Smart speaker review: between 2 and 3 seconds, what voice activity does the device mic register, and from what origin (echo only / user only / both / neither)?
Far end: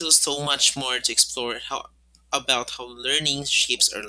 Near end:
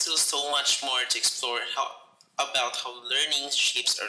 echo only